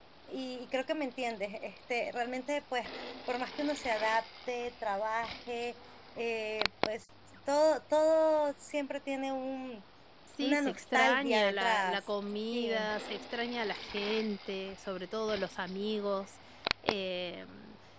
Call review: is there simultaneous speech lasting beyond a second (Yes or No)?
Yes